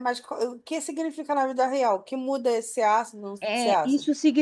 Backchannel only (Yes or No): No